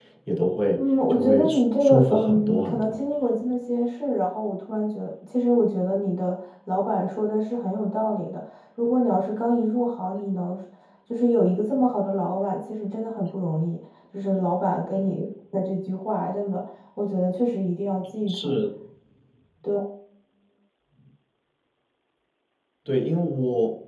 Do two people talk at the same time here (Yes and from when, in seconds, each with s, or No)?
Yes, from 0.8 s